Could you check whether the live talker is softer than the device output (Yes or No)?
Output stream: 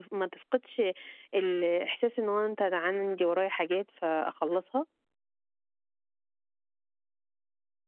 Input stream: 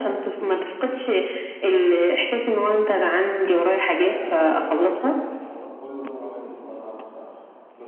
Yes